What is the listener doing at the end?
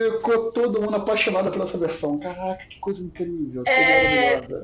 taking over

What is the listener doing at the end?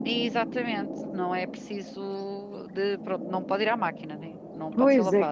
taking over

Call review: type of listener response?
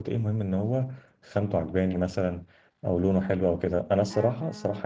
listening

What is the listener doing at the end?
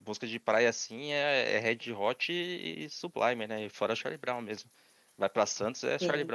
taking over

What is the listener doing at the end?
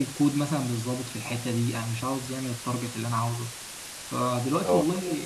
listening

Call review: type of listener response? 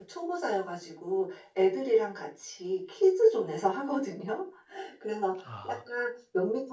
listening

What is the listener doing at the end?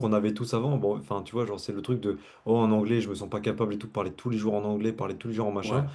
listening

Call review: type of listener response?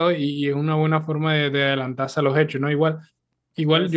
listening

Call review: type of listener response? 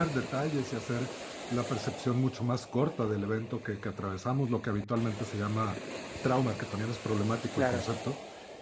listening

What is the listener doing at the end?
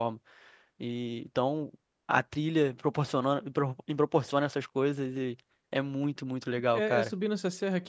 taking over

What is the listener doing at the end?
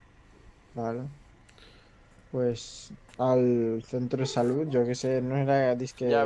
taking over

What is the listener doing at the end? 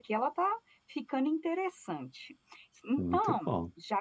listening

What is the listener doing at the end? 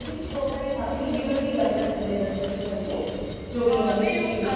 taking over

